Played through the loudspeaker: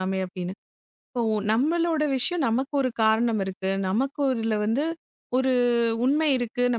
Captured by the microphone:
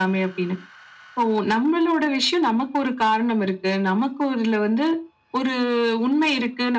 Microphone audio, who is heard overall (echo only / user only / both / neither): echo only